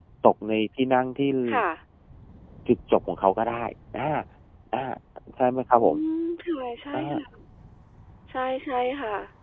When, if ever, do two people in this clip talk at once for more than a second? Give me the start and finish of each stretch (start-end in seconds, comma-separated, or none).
none